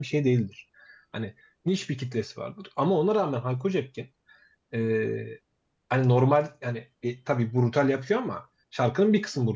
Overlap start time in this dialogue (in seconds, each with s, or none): none